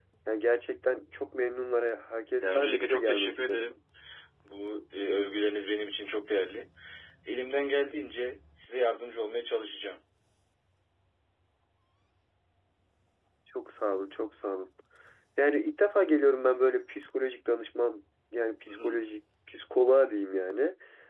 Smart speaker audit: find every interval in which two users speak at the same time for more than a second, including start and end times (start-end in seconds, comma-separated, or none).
2.4-3.7